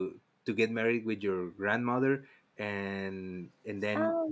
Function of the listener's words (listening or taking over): listening